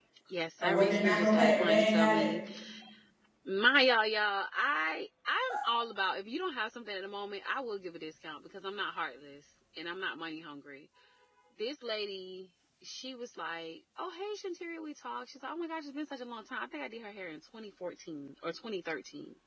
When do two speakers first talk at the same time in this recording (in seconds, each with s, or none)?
0.6 s